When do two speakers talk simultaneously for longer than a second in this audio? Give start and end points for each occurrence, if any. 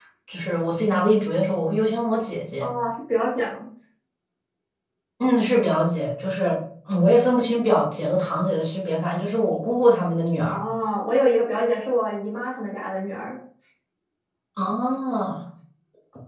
none

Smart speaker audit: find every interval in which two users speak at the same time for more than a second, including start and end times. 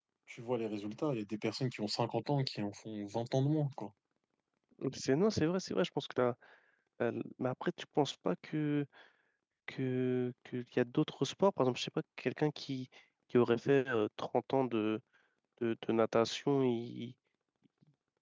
none

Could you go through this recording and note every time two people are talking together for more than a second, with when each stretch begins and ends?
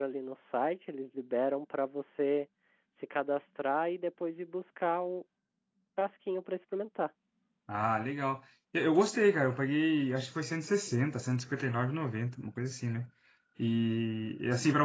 none

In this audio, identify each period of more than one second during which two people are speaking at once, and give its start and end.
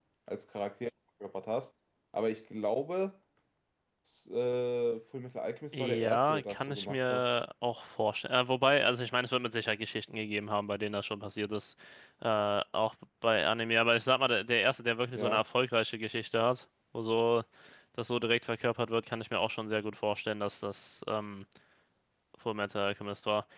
5.7-7.2

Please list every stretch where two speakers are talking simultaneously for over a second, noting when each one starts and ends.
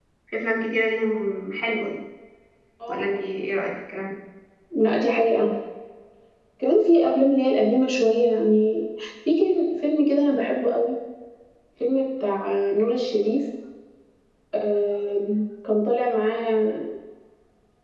none

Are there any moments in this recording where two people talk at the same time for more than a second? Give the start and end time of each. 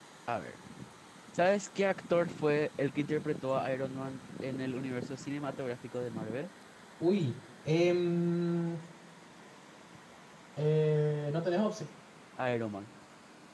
none

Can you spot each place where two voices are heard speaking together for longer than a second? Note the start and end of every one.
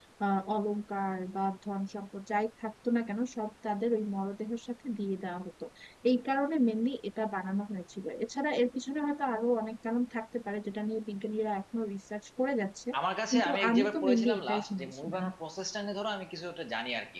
13.3-15.2

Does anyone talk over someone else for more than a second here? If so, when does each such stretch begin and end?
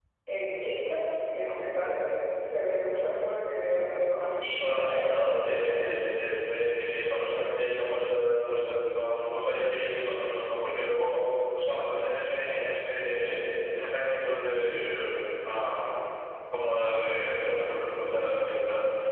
4.4-6.1

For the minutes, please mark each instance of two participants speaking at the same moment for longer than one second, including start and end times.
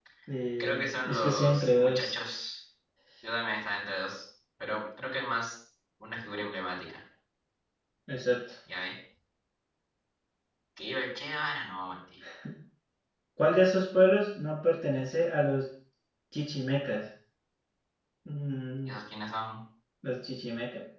0.6-2.1

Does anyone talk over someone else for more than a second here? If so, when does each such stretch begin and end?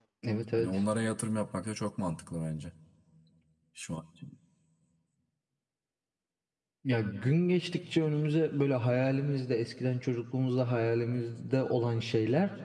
none

